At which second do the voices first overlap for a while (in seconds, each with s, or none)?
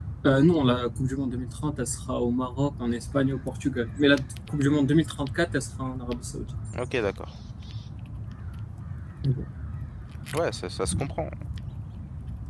none